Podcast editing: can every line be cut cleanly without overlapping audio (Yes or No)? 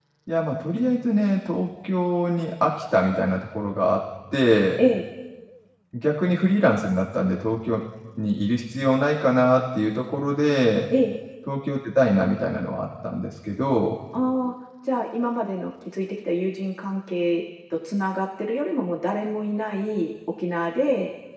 Yes